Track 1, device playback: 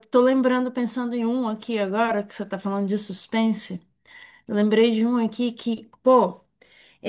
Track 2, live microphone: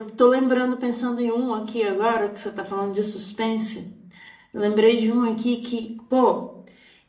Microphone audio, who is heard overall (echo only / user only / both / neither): echo only